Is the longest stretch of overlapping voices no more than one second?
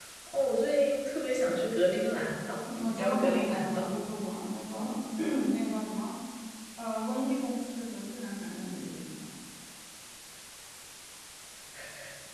No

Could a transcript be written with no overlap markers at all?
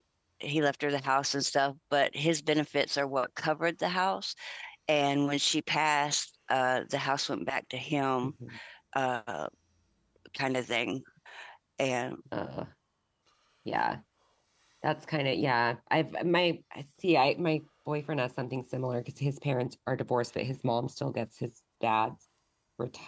Yes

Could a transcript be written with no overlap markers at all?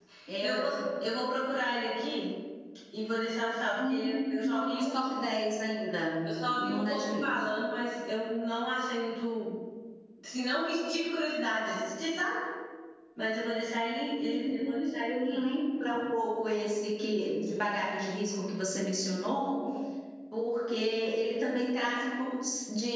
No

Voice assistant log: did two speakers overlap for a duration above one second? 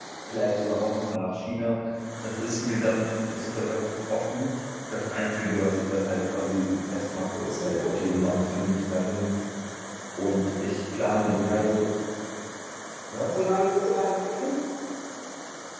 No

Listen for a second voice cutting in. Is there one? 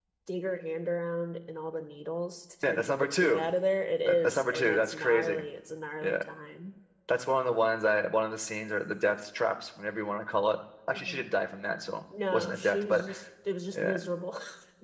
Yes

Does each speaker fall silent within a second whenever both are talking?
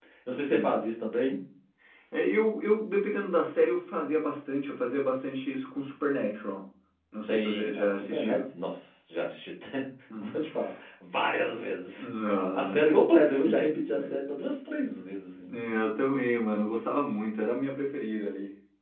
No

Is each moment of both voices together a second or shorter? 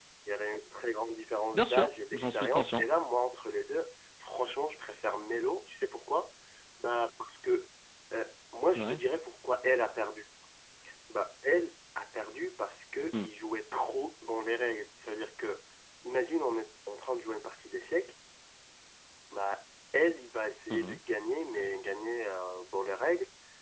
No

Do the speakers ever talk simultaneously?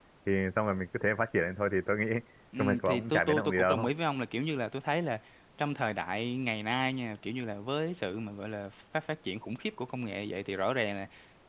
Yes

